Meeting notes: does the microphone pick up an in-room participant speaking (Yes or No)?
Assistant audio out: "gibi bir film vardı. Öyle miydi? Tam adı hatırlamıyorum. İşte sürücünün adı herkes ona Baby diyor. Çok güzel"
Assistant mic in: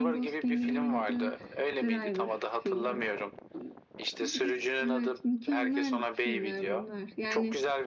Yes